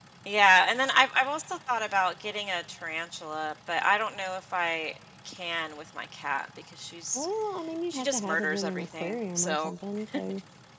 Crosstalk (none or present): present